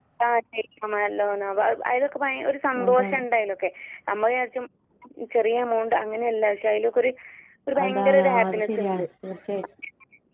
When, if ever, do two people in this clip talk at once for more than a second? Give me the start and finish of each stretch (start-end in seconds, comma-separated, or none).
7.8-9.0